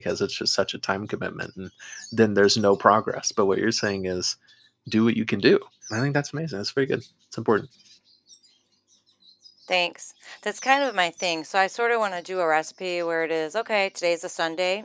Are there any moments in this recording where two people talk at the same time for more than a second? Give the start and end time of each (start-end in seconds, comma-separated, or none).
none